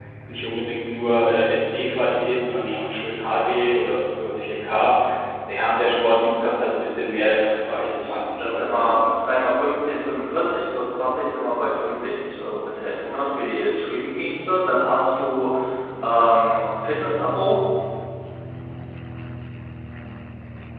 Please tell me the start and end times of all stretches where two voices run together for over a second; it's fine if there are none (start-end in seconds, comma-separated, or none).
7.7-9.1